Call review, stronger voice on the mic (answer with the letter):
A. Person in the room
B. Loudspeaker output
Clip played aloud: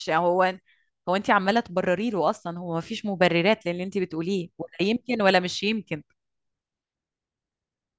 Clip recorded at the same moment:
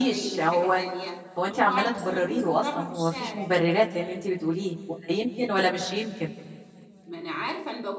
B